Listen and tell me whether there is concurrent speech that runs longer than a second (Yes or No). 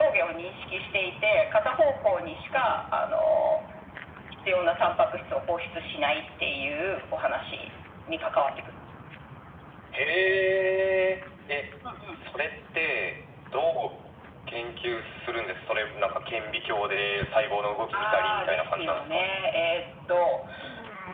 Yes